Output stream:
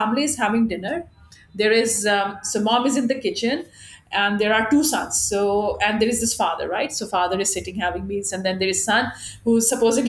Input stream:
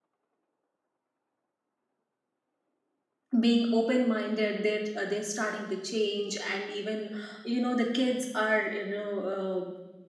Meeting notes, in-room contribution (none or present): present